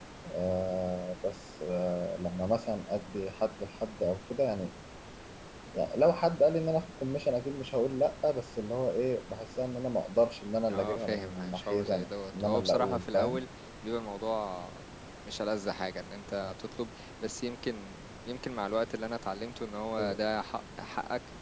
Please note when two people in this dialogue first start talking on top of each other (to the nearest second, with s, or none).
11 s